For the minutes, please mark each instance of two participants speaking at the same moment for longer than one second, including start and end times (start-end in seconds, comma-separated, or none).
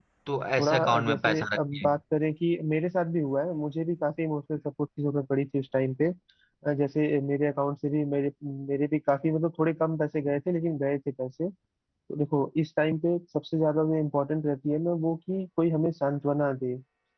0.6-1.9